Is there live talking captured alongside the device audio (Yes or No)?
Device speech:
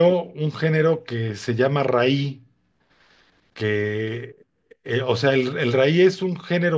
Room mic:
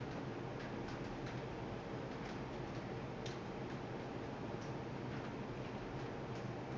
No